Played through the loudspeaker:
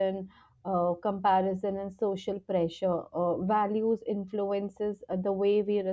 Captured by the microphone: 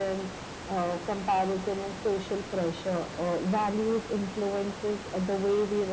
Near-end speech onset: none

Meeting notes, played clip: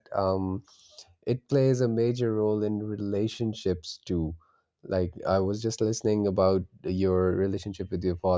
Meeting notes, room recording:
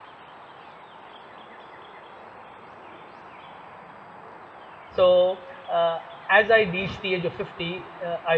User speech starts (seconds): 4.9 s

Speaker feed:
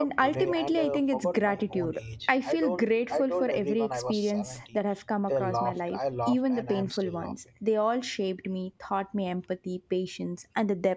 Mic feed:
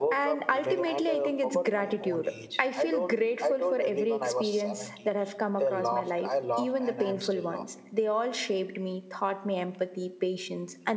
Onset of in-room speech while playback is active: none

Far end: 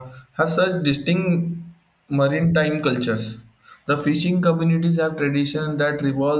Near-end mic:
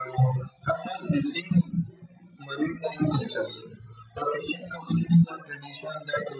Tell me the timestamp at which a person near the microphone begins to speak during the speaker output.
none

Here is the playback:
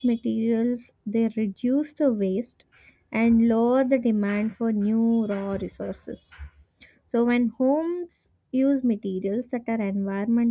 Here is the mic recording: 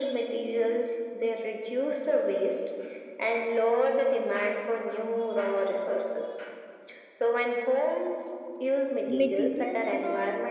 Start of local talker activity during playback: 9.1 s

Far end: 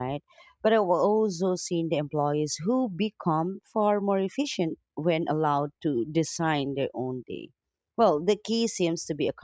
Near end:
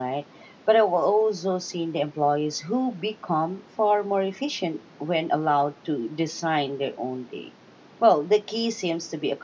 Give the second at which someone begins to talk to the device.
none

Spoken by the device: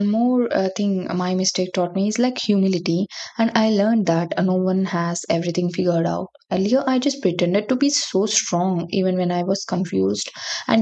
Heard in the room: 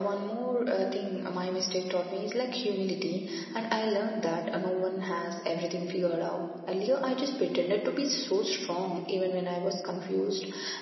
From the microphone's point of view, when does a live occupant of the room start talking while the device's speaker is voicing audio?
none

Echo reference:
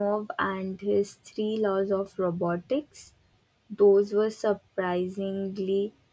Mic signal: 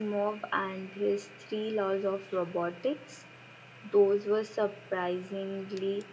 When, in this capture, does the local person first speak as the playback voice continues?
none

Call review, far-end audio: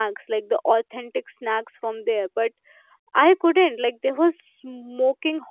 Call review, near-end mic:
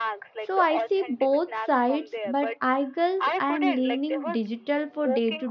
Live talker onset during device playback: 0.4 s

